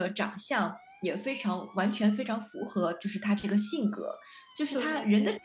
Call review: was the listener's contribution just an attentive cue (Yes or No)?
Yes